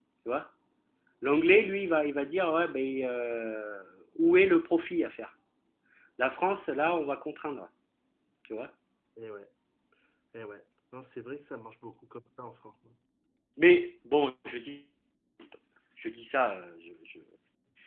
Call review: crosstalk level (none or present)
none